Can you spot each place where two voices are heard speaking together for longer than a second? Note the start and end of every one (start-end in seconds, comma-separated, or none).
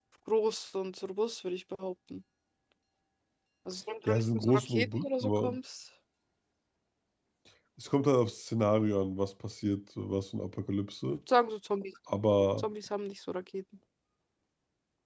4.1-5.6